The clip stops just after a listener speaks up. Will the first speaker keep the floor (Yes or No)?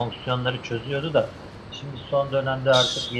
Yes